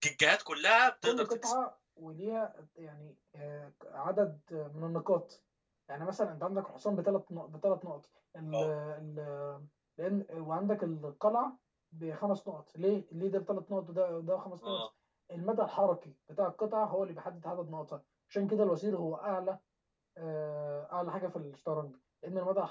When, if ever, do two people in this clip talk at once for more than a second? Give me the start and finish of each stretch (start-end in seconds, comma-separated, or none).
none